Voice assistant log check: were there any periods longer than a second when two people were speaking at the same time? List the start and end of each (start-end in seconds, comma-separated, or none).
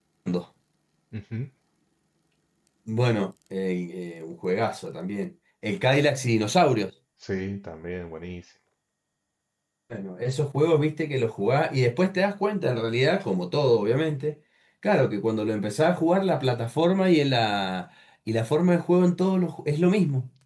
none